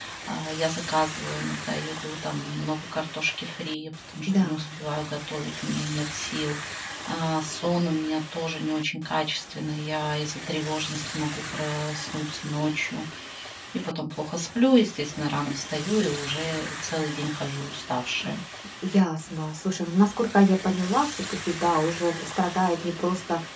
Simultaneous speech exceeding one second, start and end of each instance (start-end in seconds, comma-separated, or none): none